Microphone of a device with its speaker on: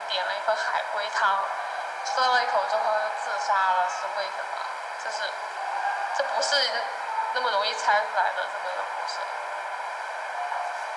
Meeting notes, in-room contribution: none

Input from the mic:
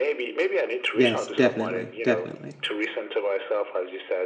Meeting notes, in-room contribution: present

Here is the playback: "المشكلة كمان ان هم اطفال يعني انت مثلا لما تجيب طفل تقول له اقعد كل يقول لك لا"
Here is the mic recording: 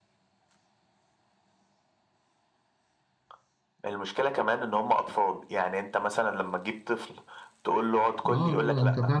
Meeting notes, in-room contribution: present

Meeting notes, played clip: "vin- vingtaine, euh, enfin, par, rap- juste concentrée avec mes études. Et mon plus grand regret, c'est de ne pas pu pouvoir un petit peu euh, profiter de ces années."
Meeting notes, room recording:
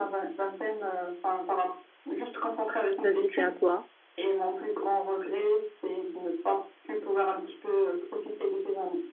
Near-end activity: present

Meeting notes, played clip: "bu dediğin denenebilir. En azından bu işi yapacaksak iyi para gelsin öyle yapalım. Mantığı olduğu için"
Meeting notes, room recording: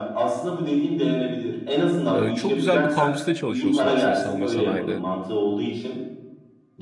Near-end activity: present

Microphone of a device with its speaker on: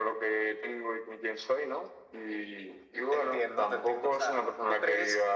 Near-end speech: none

